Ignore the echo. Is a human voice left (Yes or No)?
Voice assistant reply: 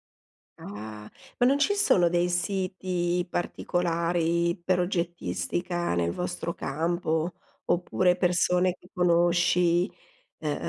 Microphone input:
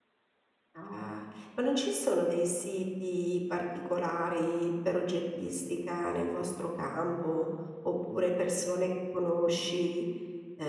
No